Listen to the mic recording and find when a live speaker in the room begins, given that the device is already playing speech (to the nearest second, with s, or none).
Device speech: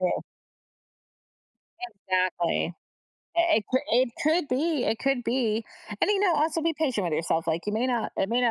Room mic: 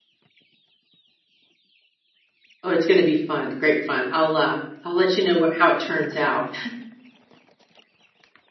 3 s